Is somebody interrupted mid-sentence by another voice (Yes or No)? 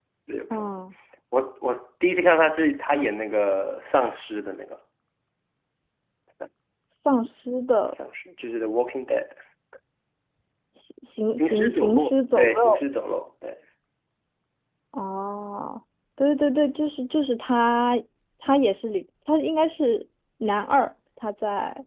Yes